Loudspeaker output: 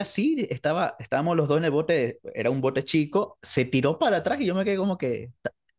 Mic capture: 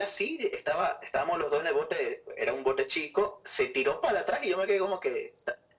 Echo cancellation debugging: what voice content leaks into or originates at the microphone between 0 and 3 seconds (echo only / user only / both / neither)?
echo only